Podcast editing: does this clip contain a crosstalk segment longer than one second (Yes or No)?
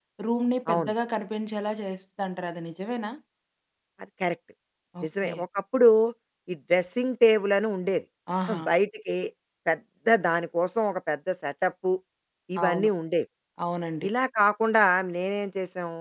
No